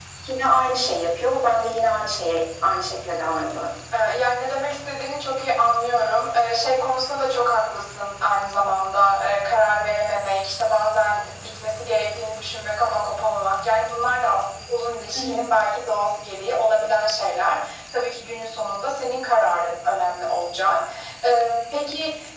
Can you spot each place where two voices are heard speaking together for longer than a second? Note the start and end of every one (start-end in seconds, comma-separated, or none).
none